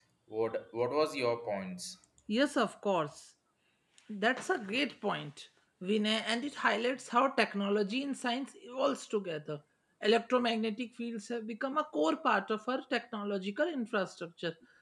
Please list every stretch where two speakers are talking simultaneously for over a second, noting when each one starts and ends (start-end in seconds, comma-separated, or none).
none